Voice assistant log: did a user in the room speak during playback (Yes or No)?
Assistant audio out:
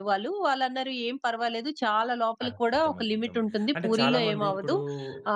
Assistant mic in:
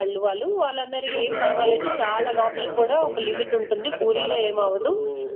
Yes